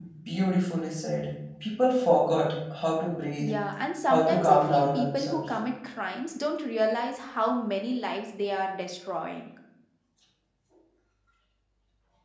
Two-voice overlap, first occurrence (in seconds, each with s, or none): 4.1 s